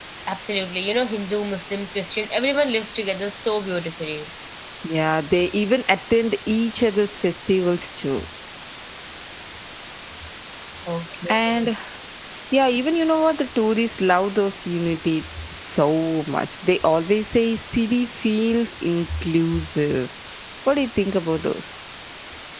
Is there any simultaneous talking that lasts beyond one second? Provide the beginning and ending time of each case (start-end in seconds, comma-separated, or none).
none